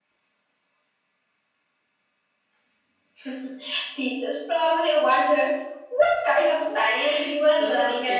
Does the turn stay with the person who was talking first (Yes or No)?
No